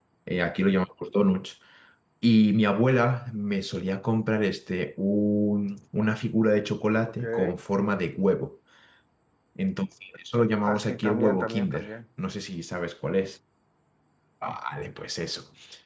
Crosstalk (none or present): present